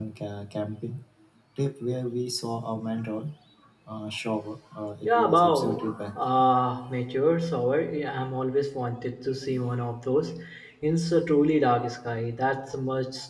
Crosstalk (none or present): present